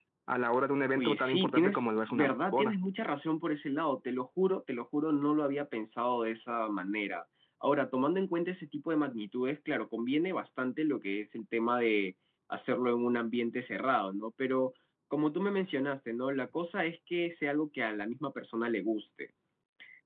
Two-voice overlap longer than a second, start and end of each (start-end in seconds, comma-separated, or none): 1.0-2.7